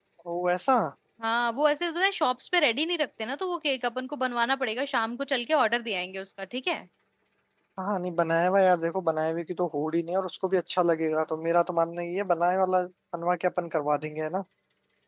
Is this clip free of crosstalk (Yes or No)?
Yes